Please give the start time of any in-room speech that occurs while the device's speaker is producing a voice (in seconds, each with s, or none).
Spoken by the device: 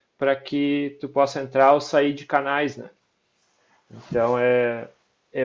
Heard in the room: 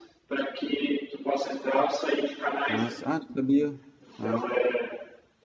2.7 s